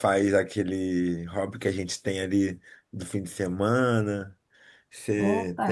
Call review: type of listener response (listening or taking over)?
listening